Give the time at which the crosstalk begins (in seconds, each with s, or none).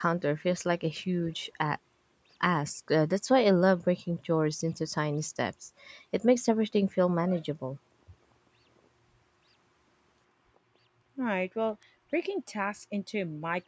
none